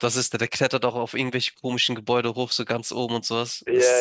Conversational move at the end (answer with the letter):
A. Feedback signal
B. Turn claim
B